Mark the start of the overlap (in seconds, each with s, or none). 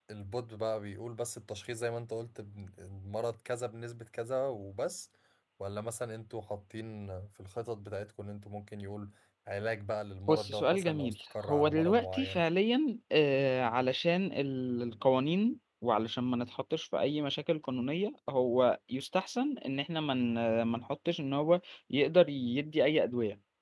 10.3 s